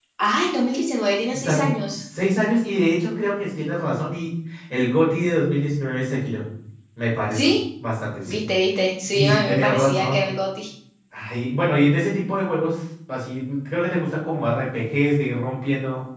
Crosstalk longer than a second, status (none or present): present